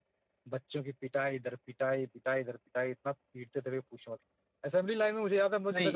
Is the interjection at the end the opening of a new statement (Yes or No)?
No